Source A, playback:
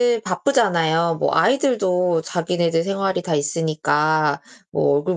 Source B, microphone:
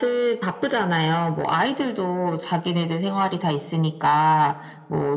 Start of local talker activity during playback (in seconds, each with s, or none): none